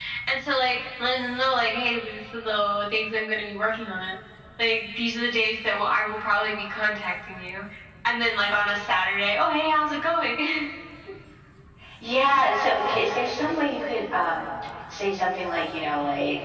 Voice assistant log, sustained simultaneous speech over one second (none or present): none